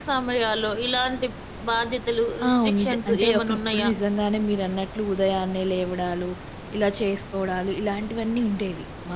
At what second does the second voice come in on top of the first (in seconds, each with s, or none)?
2.4 s